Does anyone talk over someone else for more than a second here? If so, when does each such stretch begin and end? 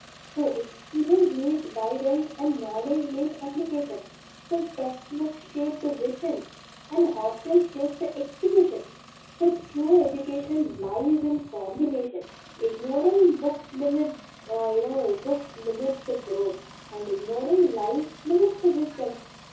none

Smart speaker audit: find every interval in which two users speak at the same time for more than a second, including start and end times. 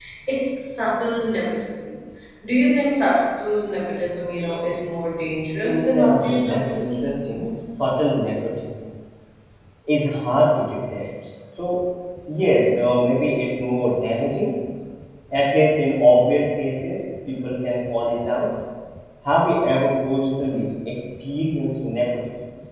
5.6-7.1

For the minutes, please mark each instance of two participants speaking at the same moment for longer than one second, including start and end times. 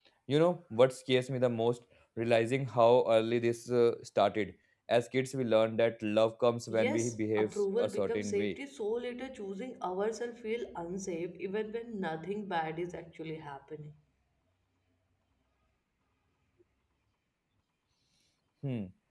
6.7-8.6

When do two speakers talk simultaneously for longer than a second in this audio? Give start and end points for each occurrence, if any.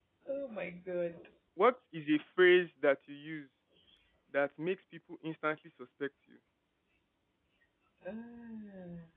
none

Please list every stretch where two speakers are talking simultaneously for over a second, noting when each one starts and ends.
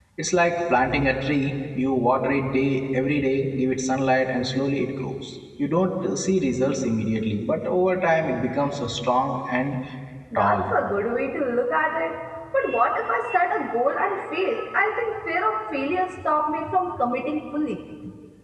none

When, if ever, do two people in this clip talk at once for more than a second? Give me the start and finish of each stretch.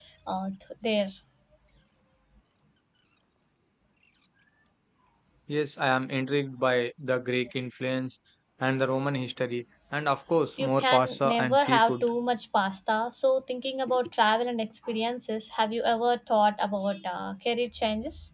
10.6-12.1

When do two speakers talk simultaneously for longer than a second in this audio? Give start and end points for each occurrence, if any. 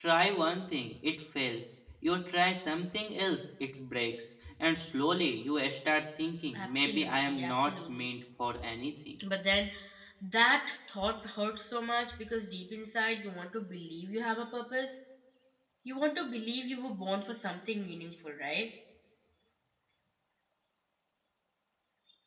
6.5-8.1

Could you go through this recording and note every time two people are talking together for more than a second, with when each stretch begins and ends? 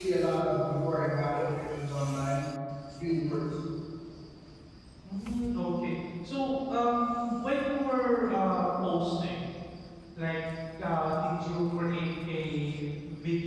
none

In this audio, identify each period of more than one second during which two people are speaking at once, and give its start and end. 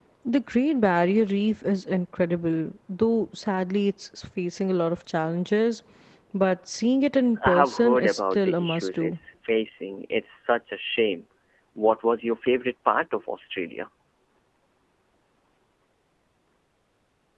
7.5-9.2

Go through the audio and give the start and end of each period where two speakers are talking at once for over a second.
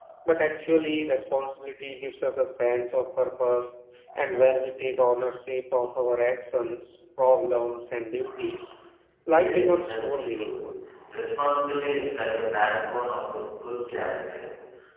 9.3-10.7

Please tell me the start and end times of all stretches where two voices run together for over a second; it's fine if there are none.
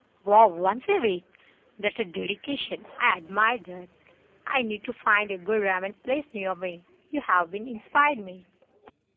none

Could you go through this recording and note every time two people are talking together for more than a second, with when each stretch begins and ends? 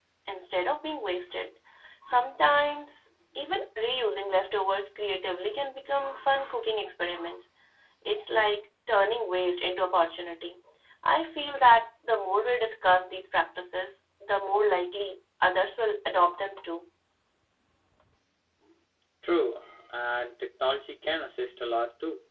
none

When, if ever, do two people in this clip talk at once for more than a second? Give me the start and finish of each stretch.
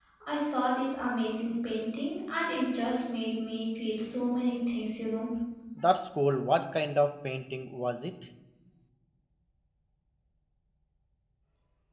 none

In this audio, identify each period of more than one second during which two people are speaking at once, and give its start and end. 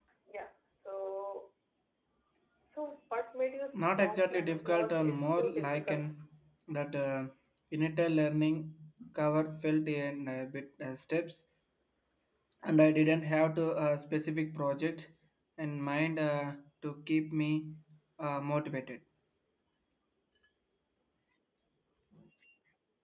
3.7-6.0

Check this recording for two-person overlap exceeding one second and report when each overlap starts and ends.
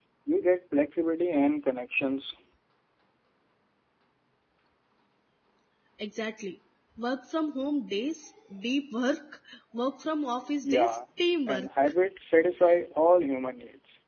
none

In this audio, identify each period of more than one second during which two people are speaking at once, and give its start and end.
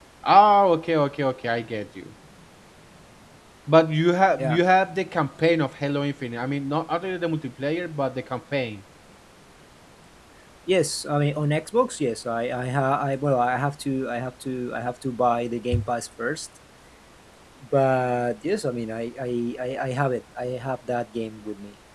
none

